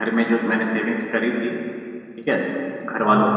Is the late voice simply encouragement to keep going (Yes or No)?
Yes